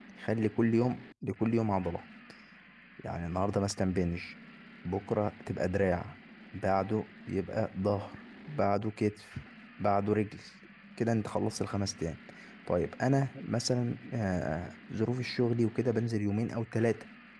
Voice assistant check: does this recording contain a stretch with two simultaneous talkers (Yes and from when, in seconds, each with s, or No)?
No